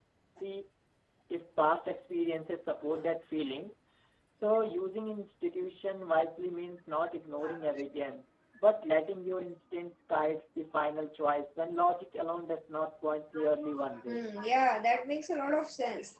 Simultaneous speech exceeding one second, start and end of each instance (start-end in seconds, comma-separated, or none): none